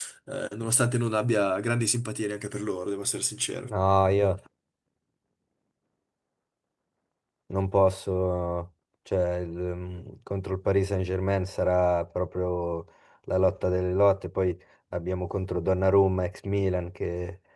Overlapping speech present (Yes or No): No